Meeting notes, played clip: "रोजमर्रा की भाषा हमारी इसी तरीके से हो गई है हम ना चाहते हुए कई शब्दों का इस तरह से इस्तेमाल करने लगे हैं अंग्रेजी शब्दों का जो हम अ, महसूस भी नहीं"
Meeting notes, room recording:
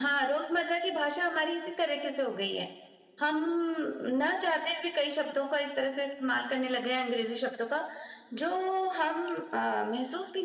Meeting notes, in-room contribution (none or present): none